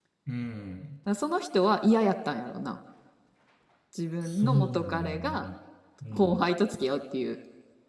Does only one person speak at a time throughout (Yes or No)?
No